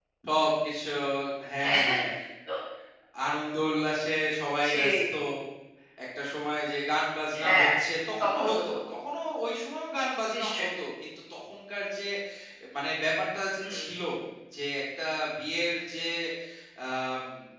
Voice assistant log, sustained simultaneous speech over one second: none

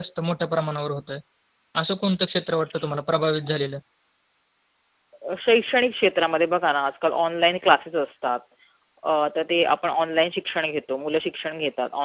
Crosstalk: none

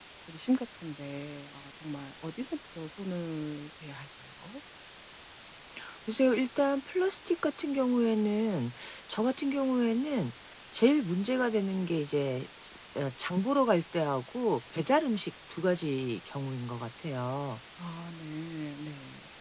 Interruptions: none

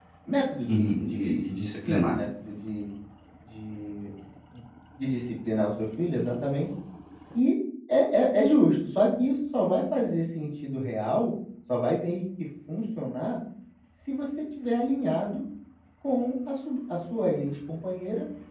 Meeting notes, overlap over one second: present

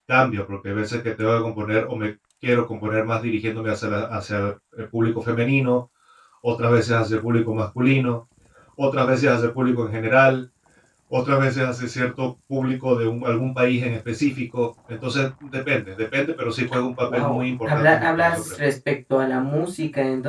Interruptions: present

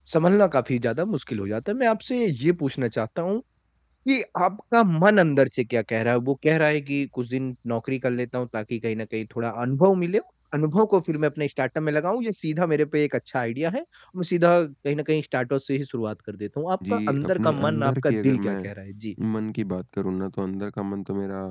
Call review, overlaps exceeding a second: present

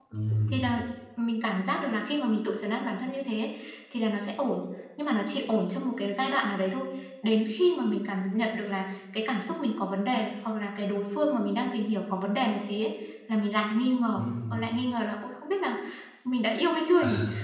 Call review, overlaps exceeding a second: none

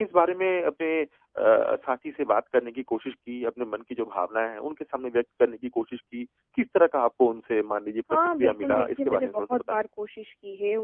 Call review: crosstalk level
present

